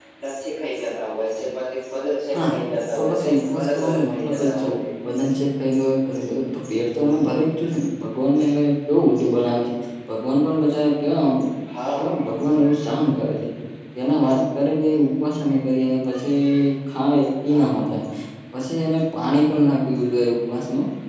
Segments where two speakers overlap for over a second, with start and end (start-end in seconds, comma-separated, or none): 2.9-4.7